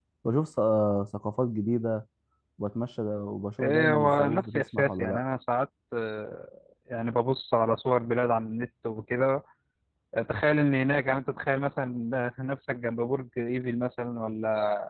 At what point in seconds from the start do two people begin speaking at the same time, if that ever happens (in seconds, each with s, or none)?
3.6 s